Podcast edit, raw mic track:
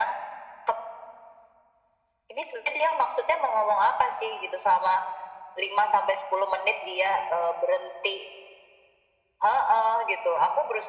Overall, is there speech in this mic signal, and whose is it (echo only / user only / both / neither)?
echo only